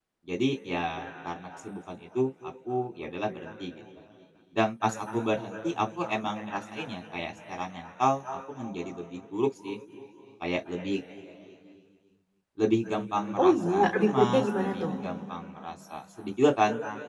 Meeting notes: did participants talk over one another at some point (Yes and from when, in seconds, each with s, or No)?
Yes, from 13.4 s